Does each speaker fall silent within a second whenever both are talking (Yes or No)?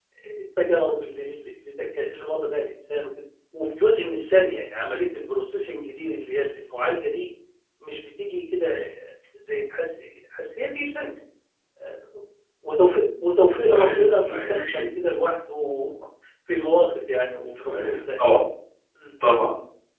No